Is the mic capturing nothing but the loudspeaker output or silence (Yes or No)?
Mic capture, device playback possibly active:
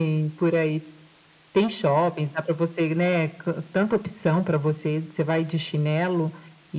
Yes